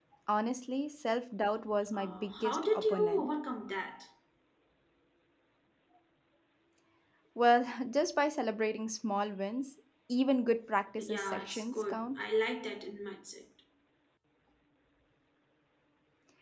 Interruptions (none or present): present